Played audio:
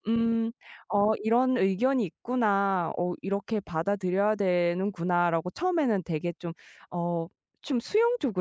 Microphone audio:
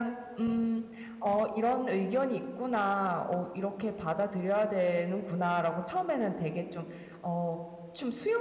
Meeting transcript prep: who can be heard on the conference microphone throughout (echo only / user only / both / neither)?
echo only